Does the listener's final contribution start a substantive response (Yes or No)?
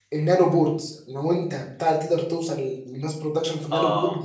No